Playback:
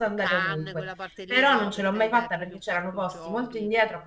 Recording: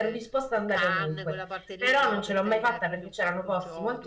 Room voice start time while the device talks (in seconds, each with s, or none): none